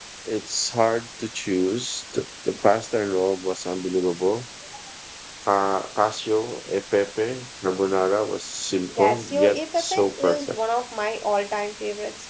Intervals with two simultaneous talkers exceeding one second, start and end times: 9.0-10.6

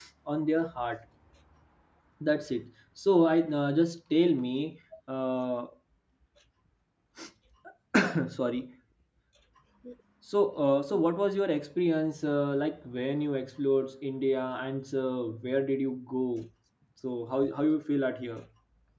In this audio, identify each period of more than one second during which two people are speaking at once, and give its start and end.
none

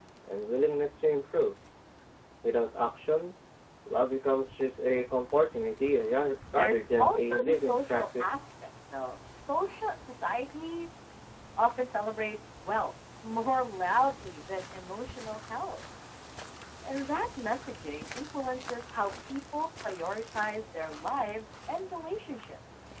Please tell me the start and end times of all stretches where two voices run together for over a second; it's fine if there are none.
6.5-8.4

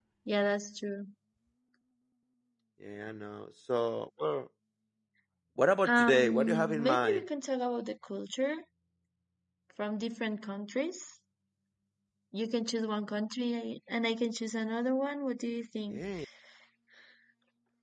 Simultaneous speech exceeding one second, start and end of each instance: 5.8-7.2

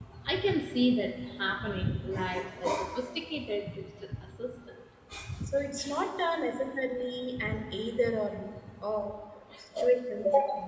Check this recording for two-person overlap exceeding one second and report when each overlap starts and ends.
none

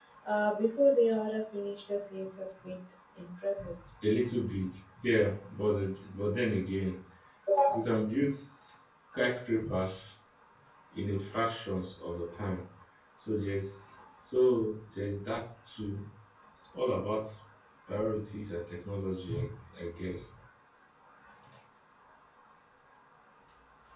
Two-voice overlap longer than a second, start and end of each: none

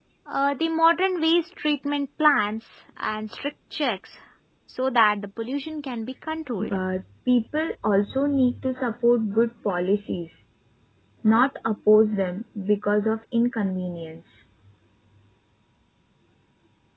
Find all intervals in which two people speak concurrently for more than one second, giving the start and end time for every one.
none

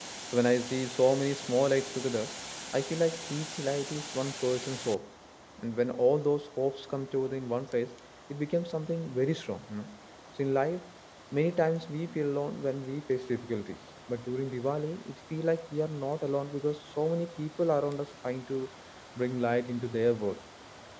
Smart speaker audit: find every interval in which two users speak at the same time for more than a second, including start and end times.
none

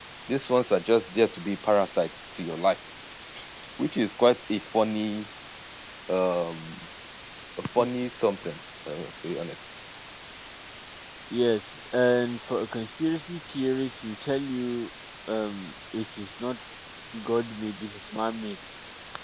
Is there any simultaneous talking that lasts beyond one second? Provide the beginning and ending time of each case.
none

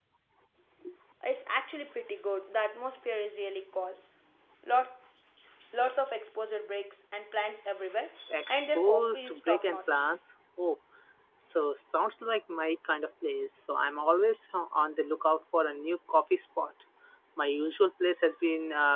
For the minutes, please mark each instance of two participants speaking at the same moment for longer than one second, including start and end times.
8.5-10.1

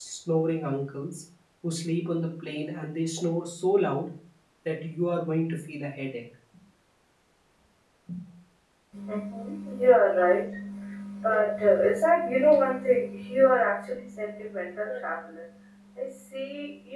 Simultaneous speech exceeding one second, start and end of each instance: none

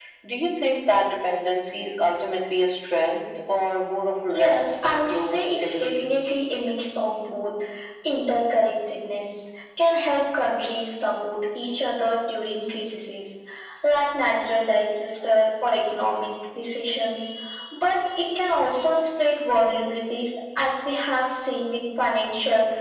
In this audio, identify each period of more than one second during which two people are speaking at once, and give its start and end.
4.3-6.1

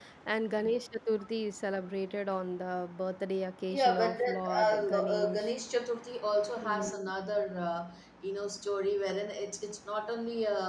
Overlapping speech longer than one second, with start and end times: 3.7-5.5

